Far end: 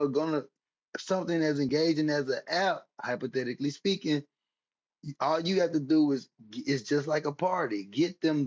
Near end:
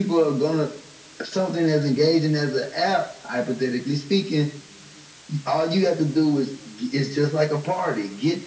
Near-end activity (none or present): none